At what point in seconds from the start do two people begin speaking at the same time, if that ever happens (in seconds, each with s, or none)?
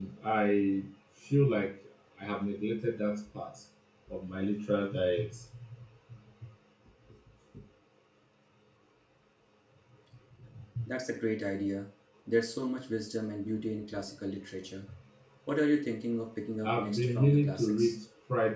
16.6 s